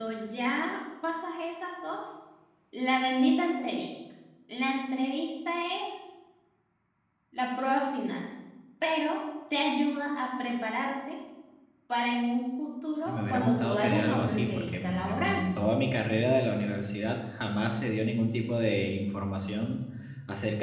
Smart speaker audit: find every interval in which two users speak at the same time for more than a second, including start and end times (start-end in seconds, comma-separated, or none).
13.1-15.4